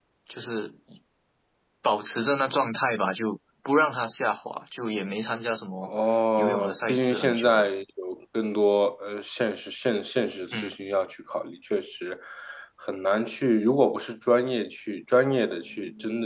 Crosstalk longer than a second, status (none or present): present